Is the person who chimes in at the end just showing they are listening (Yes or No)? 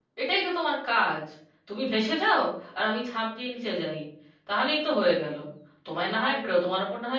Yes